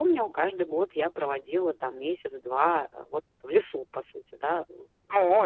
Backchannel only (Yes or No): No